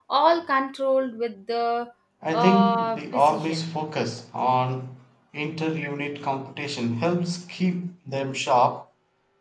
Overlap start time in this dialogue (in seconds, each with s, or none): 2.3 s